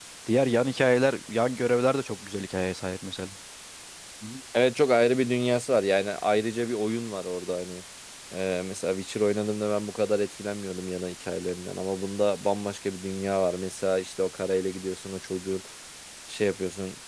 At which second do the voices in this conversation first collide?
none

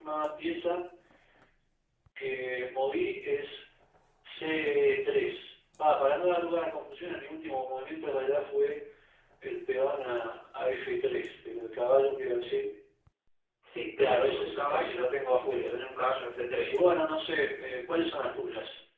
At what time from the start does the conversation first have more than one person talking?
14.0 s

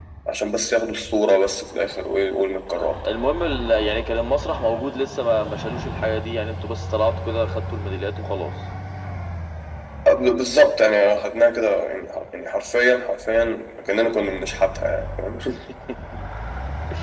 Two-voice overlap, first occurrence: none

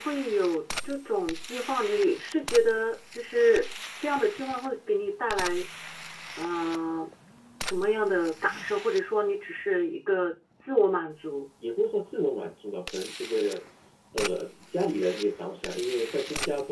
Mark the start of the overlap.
none

